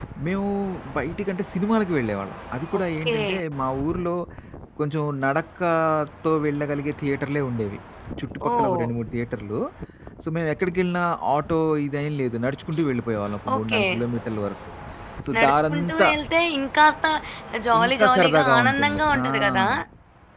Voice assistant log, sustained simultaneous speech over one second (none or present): present